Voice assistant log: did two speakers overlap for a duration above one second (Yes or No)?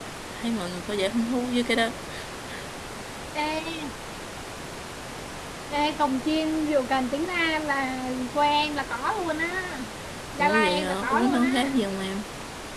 Yes